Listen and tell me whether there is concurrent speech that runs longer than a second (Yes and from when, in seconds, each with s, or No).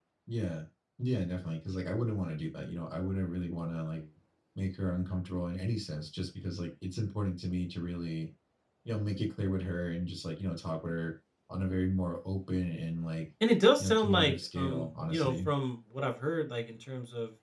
Yes, from 13.8 s